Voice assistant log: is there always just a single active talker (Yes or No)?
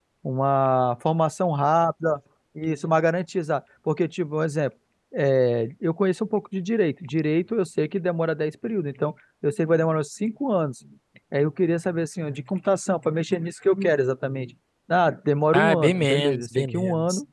No